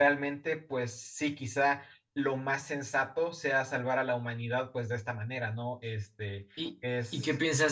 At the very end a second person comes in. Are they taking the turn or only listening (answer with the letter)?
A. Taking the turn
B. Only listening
A